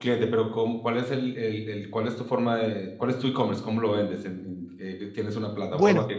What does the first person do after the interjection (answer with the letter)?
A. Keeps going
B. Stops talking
B